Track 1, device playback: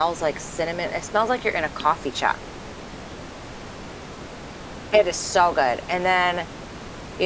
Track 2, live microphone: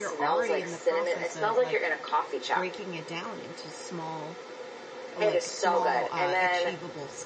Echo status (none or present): present